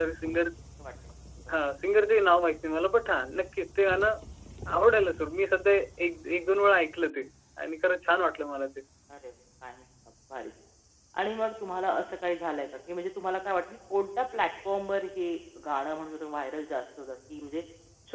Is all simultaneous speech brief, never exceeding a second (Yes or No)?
Yes